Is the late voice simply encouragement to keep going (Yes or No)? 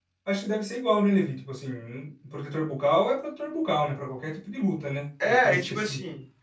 No